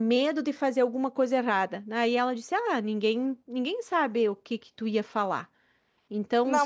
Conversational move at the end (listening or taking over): taking over